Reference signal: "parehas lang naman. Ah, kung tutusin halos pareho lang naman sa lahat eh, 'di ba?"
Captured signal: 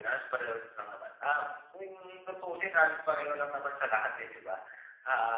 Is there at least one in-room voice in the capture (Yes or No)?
No